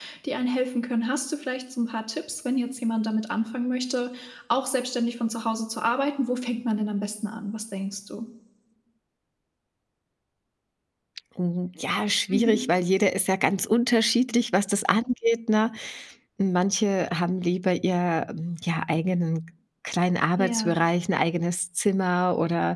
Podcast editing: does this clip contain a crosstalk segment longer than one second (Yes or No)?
No